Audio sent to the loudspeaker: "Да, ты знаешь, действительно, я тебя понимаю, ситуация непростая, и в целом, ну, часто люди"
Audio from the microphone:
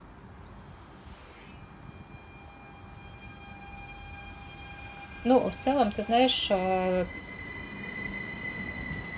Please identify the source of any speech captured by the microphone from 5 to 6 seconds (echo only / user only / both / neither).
user only